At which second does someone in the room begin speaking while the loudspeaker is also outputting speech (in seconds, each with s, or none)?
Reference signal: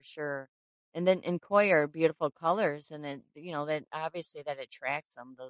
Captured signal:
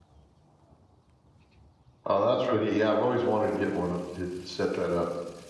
2.0 s